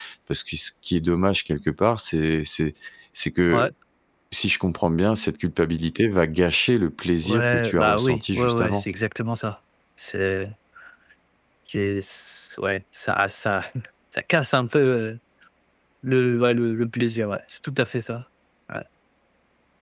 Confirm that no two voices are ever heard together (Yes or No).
No